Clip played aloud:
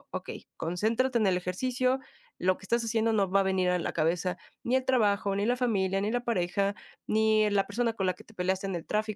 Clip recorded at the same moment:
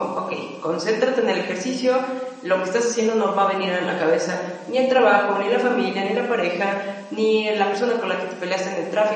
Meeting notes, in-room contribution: none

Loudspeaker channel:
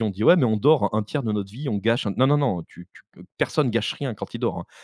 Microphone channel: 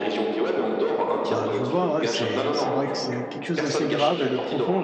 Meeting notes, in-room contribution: present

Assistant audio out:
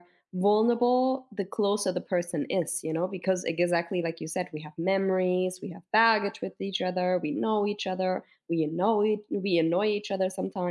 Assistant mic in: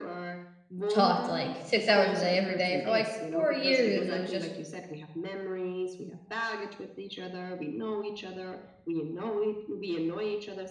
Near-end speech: present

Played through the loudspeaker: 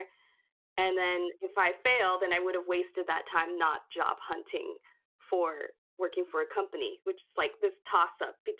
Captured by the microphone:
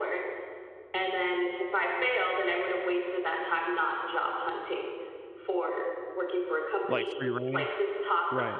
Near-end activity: present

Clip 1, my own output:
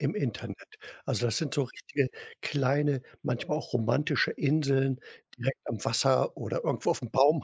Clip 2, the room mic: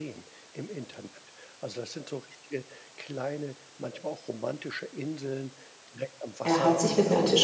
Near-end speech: present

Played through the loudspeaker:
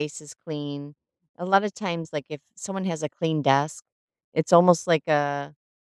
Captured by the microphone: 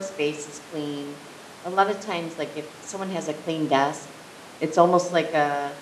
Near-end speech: none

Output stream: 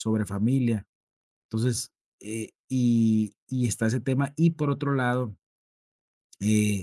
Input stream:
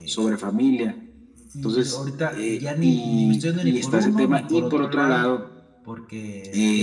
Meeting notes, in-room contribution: present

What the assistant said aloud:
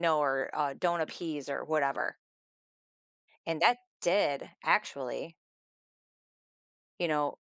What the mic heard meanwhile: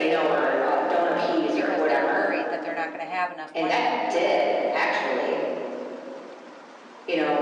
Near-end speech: present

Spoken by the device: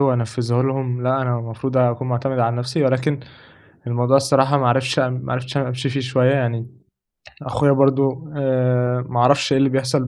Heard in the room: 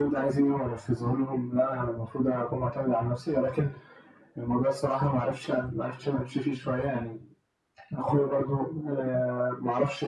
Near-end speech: none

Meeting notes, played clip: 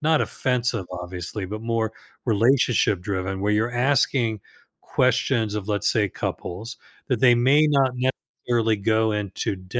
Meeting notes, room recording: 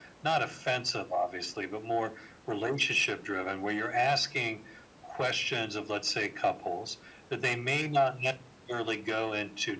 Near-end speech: none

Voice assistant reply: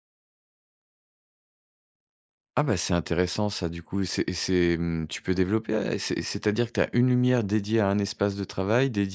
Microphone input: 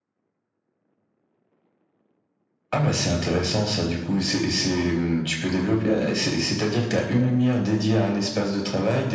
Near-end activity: none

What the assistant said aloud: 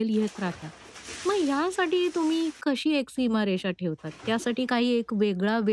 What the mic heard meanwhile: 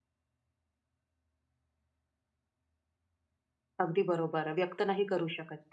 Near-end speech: present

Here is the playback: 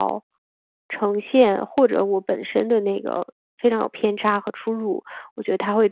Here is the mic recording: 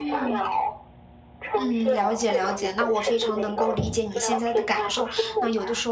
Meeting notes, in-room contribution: present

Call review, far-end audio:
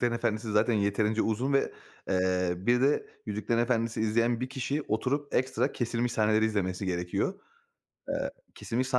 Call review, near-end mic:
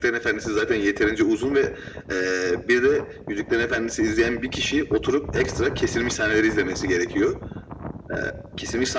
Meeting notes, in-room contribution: none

